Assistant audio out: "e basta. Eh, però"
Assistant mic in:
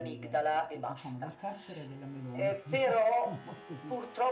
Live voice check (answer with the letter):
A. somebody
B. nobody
A